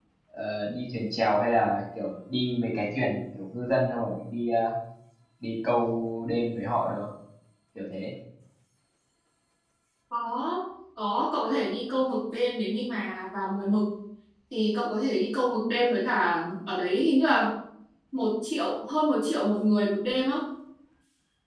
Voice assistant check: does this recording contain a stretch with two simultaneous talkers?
No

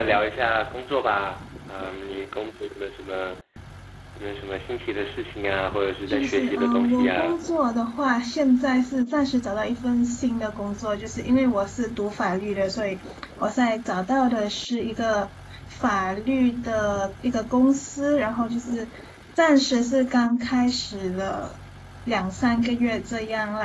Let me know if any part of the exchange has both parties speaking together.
Yes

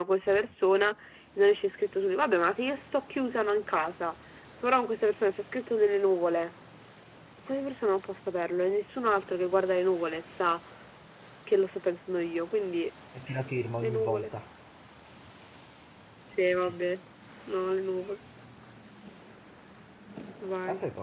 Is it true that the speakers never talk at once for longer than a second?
Yes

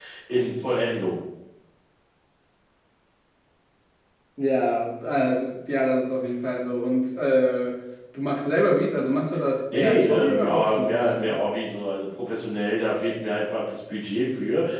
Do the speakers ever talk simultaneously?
Yes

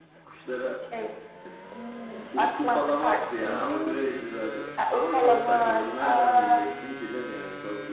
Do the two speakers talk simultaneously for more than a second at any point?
Yes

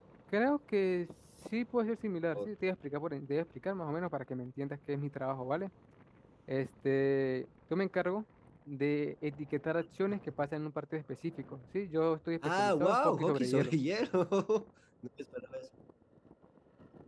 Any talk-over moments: Yes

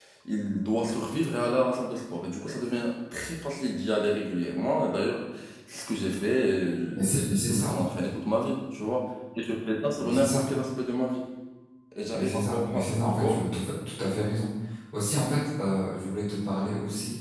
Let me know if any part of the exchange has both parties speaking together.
Yes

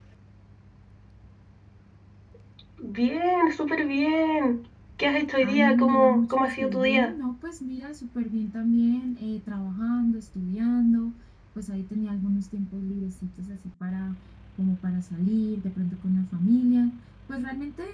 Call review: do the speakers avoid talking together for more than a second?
No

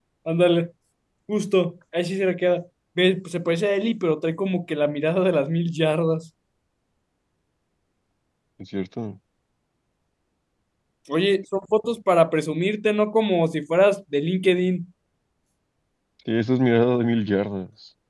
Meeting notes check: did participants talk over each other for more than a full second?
No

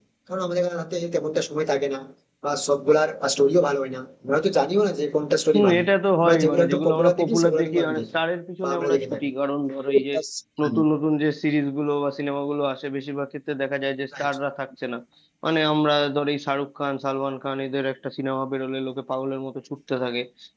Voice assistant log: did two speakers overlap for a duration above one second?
Yes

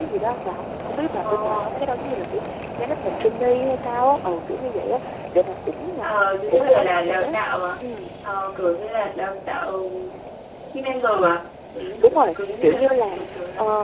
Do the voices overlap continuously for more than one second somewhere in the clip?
Yes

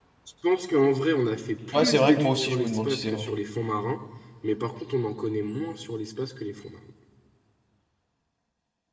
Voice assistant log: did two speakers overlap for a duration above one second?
Yes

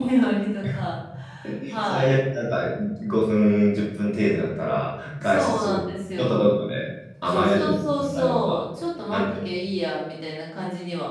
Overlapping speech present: Yes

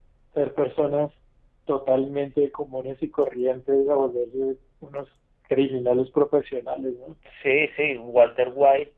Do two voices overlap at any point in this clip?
No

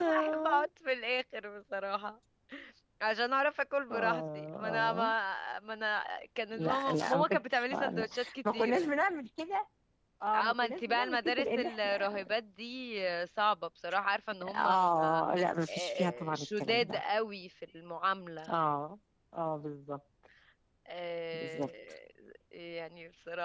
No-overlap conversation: No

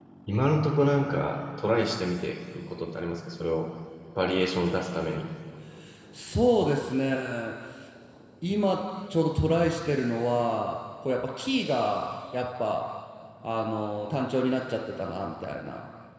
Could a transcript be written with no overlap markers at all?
Yes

